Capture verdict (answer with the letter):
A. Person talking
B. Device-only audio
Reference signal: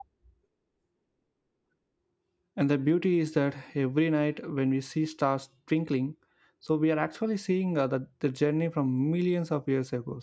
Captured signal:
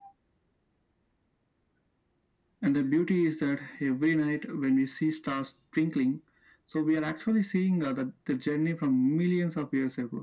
B